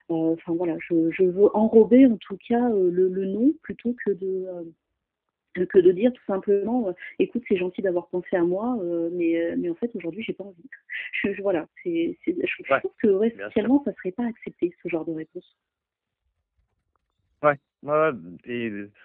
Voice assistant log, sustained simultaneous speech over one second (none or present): none